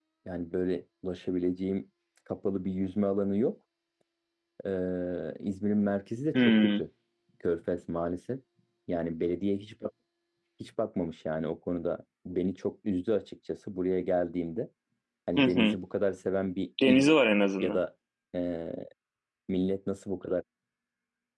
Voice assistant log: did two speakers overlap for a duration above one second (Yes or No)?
No